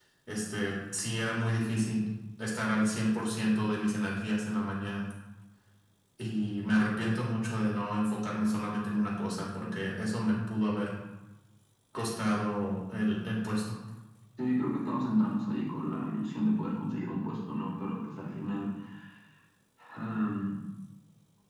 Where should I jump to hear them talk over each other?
none

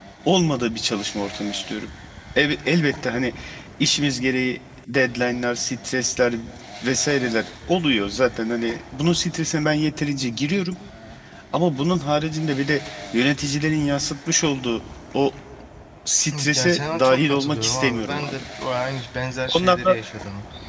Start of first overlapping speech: 16.5 s

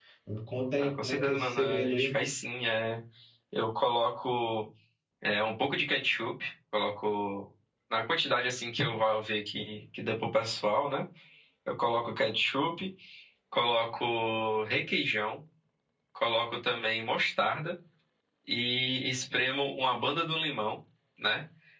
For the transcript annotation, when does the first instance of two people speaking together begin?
0.8 s

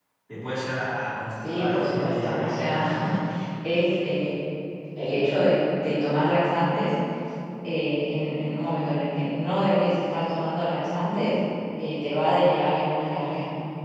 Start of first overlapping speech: 1.4 s

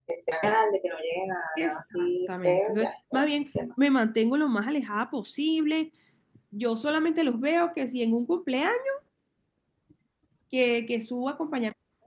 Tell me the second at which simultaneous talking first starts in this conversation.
1.6 s

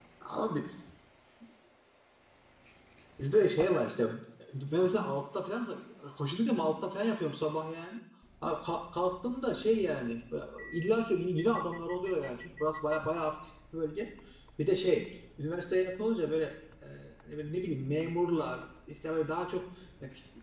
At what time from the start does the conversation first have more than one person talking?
none

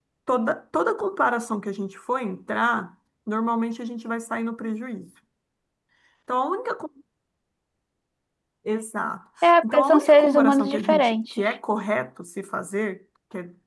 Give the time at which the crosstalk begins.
9.4 s

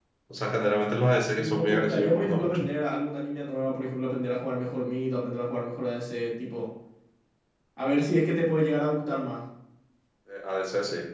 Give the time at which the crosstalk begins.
1.4 s

